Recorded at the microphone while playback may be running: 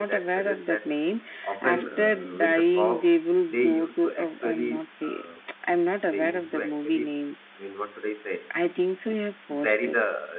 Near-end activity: present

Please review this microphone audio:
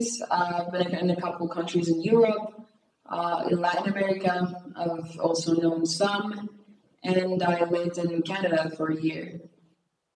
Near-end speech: none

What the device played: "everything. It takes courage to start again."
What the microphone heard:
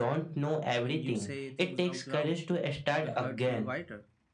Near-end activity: present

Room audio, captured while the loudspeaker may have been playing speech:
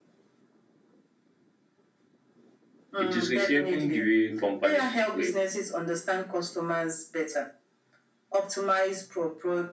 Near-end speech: present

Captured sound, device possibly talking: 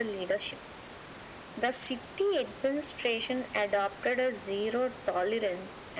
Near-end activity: none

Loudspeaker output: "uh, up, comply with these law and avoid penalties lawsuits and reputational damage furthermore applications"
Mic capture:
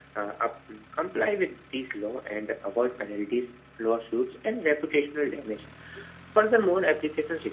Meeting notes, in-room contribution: none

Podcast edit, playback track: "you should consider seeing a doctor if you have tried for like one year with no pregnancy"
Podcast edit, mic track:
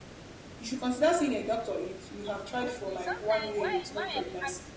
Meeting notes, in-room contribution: present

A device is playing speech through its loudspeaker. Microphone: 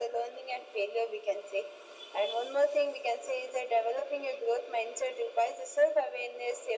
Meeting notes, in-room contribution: none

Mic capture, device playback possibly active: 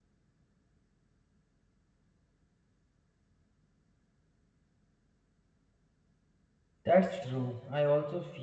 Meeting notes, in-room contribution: present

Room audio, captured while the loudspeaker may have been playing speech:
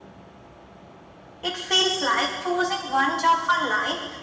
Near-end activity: present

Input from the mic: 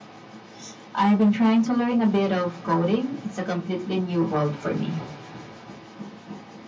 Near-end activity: none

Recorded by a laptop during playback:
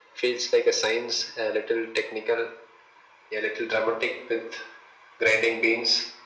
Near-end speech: none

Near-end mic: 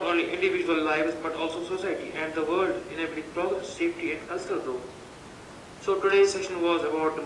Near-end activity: none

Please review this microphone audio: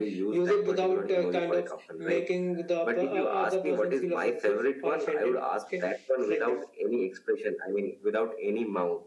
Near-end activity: none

